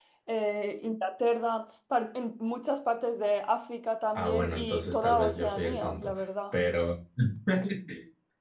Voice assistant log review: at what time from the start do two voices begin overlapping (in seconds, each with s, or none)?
4.2 s